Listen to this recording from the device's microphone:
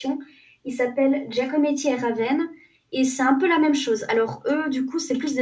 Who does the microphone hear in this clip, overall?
user only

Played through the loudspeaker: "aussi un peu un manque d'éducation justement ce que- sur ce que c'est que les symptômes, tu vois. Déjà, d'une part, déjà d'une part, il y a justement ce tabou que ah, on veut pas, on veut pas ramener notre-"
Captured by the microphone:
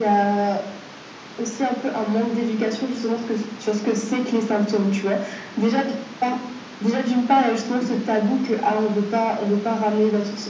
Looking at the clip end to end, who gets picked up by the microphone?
echo only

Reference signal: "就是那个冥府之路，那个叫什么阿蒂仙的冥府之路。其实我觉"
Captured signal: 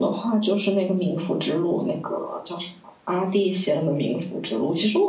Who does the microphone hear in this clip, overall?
echo only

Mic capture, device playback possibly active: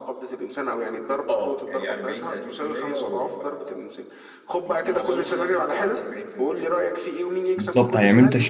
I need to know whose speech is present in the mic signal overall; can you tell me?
both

